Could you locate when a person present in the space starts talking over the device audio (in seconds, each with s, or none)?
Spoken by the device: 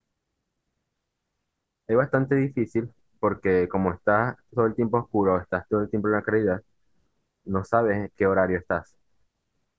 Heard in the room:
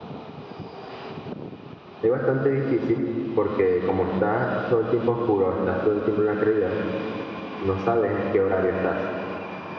none